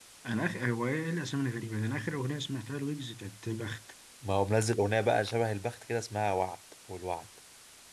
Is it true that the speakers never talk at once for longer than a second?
Yes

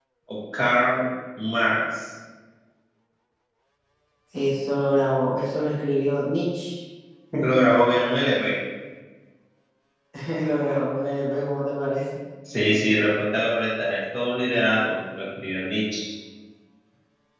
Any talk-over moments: No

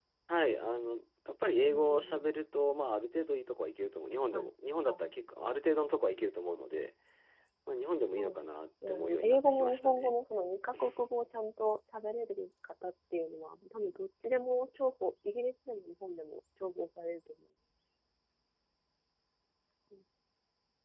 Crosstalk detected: Yes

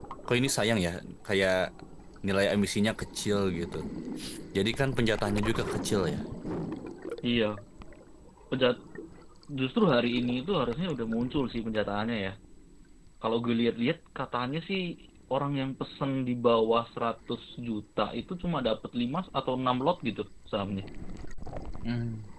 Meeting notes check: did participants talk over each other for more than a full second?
No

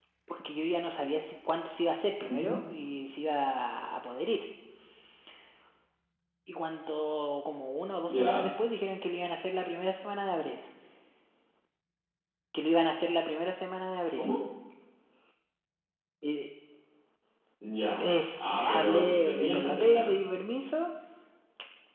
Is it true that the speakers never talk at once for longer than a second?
No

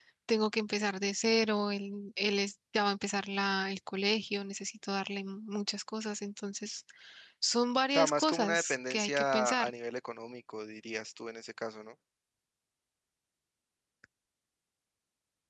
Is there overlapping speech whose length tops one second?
Yes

